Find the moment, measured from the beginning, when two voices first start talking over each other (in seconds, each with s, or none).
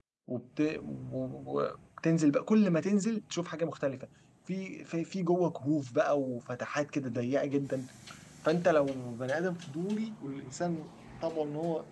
none